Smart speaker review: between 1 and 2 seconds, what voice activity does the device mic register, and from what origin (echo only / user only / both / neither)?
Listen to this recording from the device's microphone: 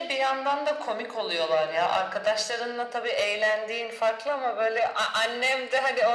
echo only